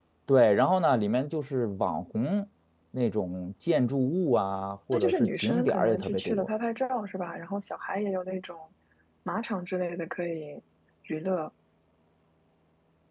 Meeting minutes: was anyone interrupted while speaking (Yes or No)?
Yes